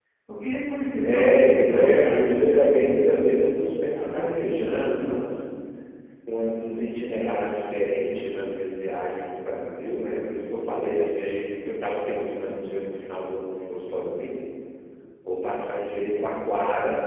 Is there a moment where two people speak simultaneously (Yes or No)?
Yes